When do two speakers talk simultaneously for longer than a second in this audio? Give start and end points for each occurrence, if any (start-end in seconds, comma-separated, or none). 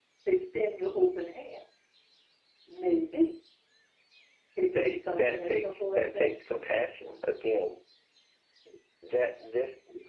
4.7-6.3